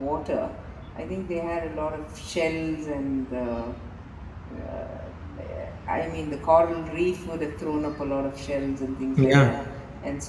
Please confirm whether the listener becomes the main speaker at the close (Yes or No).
No